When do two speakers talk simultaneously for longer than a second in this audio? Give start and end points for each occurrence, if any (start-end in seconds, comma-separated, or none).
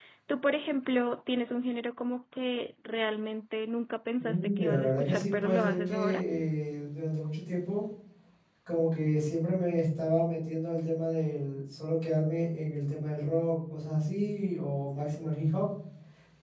4.2-6.2